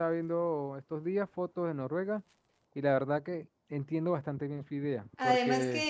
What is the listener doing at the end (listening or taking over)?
taking over